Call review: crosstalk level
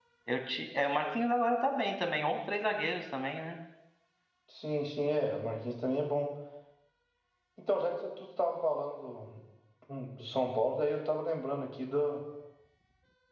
none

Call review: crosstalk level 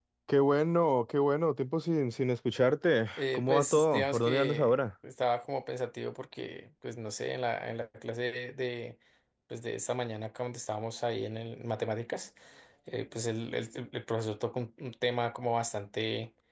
present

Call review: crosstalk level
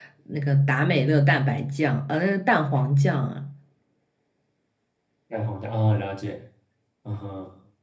none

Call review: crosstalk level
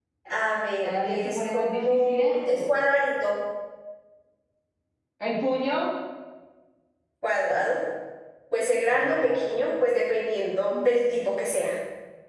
present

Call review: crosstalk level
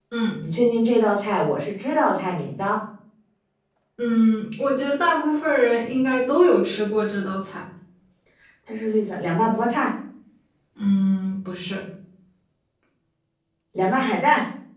none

